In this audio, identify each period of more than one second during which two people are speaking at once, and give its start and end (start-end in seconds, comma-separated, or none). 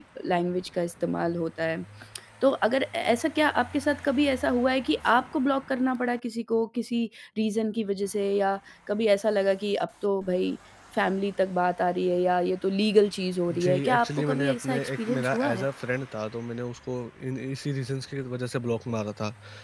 13.5-15.6